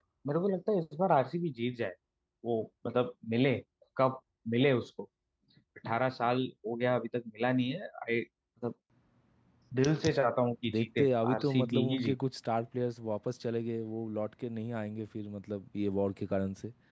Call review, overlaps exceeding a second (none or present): present